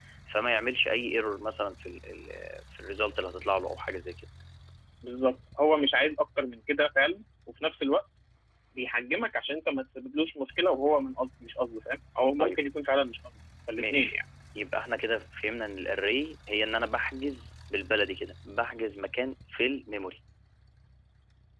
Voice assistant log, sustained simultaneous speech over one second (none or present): none